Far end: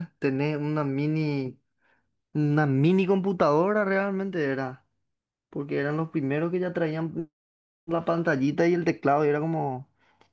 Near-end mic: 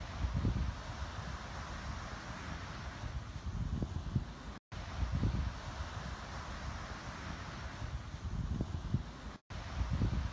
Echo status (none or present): none